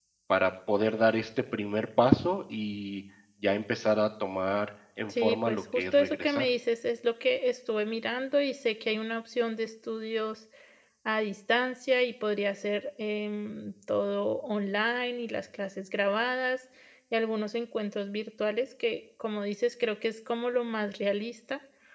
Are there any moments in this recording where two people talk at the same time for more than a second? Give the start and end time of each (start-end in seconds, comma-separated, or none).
5.1-6.5